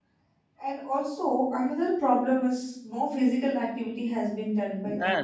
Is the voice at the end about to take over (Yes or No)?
Yes